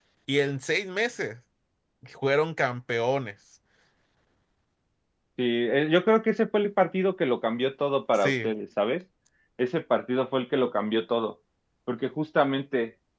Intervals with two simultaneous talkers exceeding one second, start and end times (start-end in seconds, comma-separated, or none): none